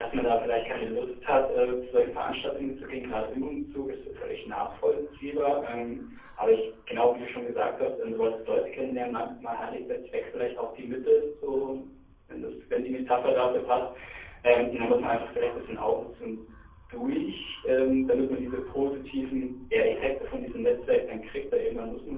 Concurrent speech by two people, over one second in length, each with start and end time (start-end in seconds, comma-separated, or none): none